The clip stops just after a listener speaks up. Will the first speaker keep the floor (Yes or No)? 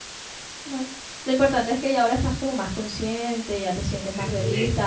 Yes